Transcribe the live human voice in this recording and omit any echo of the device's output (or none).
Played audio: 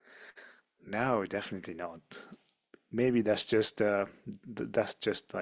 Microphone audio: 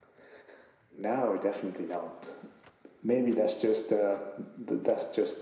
none